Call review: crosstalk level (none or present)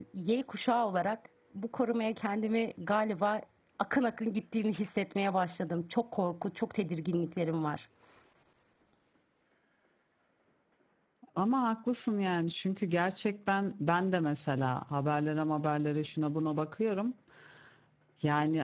none